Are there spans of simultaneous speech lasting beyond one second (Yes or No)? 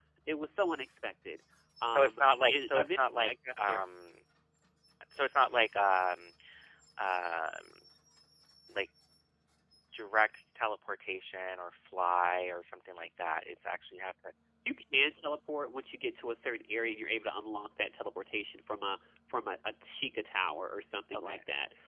Yes